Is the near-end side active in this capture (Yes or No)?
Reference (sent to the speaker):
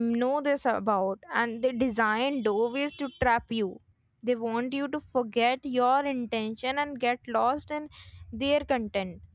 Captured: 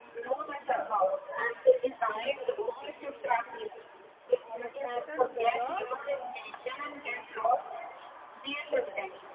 Yes